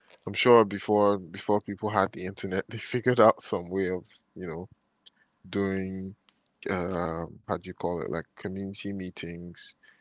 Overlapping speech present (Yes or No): No